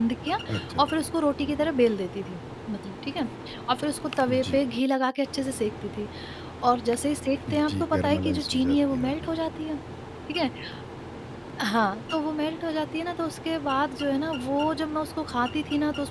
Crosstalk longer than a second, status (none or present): present